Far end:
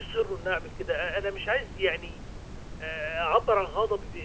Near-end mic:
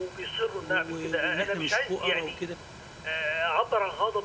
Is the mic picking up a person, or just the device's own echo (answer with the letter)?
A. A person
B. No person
A